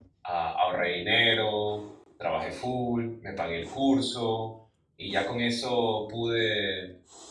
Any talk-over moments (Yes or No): No